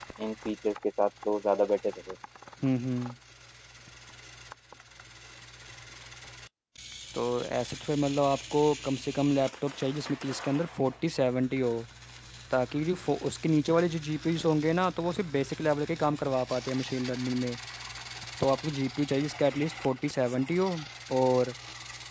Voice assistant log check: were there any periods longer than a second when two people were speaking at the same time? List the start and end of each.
none

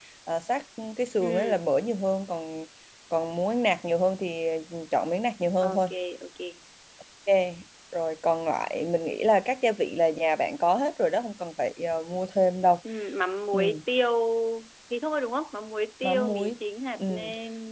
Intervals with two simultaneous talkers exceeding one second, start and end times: none

